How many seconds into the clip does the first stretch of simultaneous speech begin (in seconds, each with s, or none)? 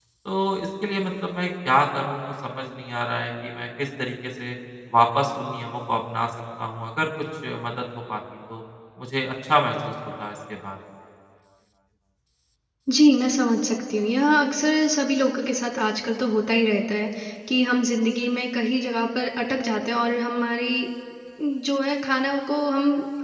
none